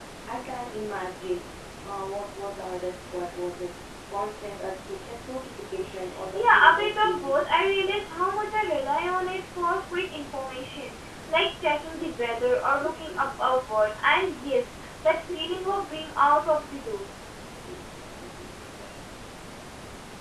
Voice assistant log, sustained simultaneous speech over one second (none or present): present